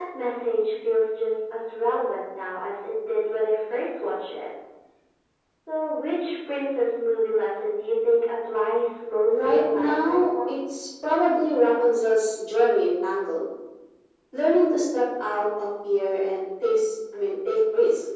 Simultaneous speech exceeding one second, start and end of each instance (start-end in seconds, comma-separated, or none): 9.3-10.5